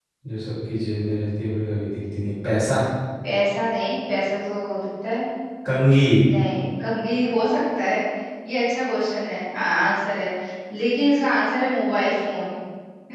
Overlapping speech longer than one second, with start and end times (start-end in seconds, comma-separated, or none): none